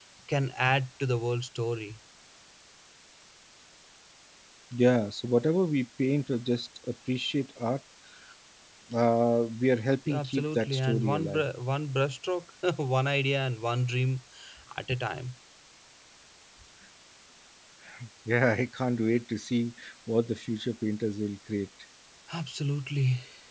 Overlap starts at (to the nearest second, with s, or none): 10 s